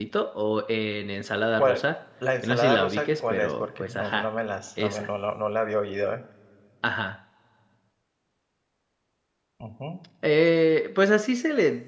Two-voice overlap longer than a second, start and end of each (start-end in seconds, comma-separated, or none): 2.4-4.2